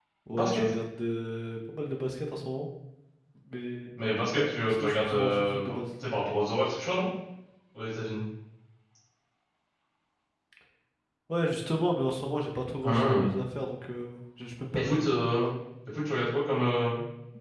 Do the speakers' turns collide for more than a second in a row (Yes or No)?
Yes